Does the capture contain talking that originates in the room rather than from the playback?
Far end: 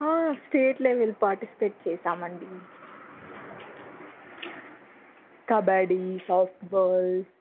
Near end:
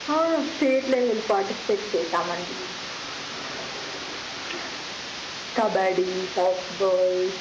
No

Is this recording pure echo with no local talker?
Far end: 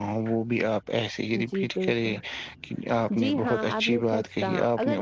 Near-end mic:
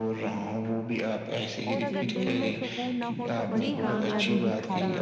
No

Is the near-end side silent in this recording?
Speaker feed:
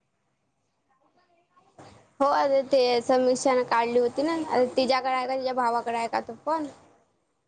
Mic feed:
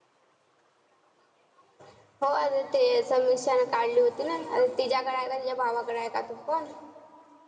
Yes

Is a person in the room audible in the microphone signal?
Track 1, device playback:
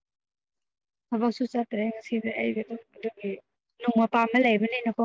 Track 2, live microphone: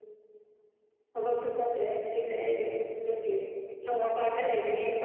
No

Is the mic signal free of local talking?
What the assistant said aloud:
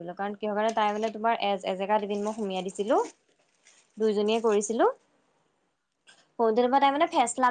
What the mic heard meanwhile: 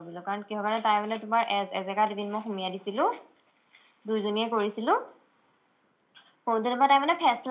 Yes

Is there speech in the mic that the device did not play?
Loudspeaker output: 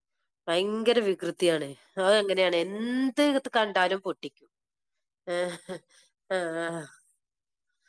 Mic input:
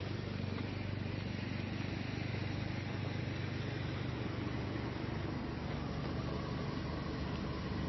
No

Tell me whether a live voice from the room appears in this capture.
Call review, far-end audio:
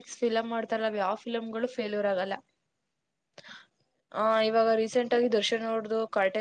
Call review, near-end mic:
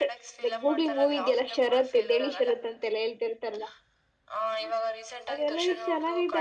Yes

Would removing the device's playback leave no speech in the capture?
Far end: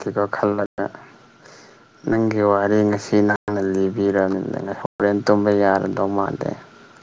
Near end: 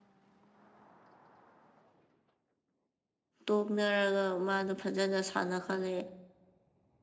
No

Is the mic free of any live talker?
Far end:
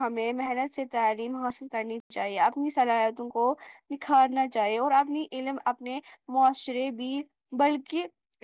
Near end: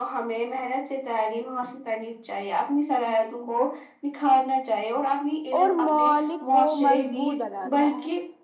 No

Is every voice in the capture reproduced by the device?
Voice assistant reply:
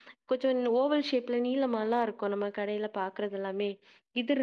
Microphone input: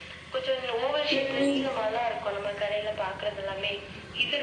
No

